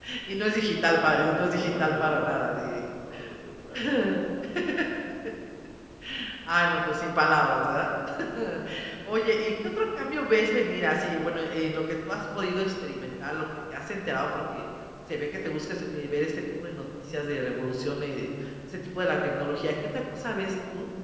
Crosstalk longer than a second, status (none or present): present